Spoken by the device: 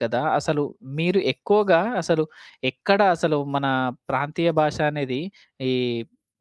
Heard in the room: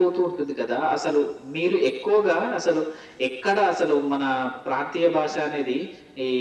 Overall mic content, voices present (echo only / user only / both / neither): echo only